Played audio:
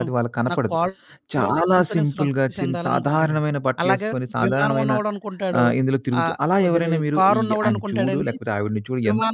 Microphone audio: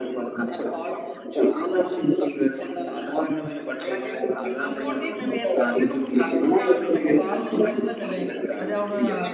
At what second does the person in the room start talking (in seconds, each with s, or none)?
4.3 s